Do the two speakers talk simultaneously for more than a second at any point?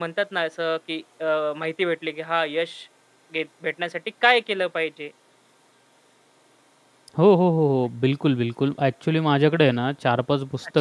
No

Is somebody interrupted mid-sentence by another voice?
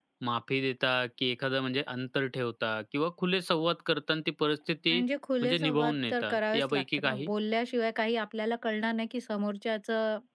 Yes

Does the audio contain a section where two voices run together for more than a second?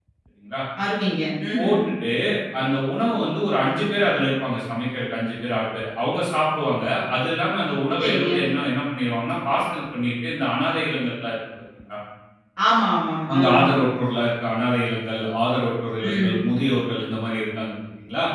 No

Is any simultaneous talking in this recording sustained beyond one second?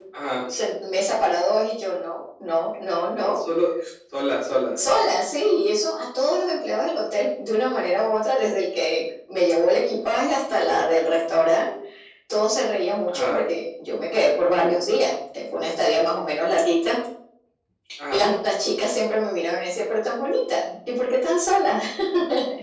No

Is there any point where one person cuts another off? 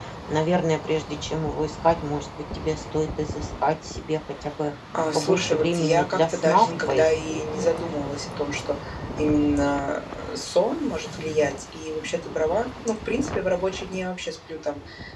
Yes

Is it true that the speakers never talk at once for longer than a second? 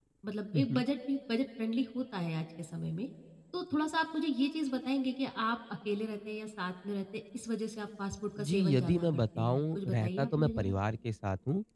No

